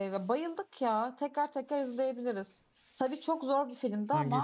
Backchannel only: Yes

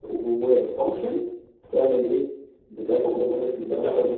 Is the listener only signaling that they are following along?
Yes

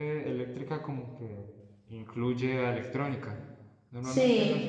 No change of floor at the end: Yes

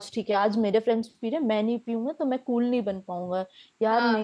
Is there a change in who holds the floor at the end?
No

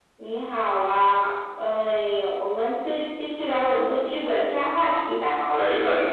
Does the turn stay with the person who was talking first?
No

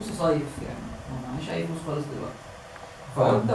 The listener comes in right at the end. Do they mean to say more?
No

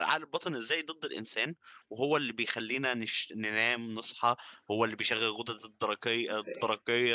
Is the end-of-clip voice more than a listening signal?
No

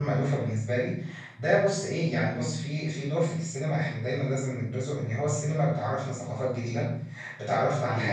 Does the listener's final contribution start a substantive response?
No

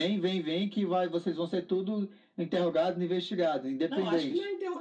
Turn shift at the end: Yes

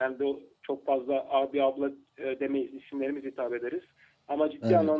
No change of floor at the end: Yes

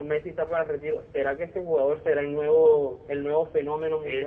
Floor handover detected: Yes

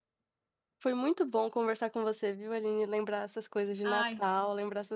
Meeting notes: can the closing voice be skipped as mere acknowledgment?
Yes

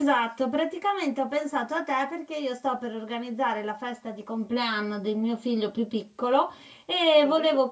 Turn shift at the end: No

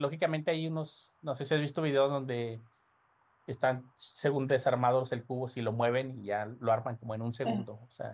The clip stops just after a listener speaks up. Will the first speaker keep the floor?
No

